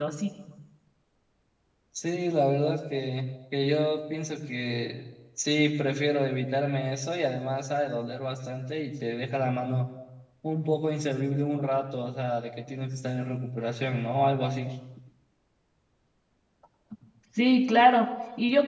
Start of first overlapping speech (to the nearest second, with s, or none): none